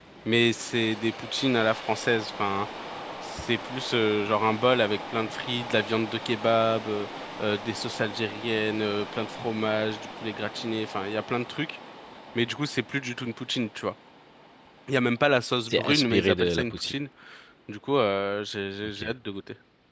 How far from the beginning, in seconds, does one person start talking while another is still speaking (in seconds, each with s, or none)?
15.7 s